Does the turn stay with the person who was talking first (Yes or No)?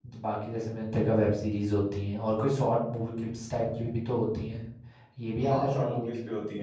No